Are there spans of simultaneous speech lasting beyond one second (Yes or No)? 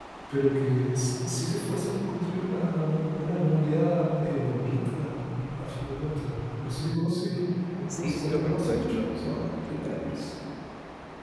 Yes